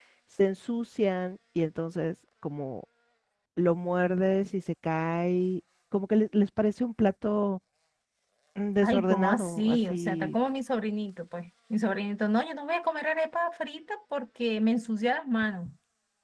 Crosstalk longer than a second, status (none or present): present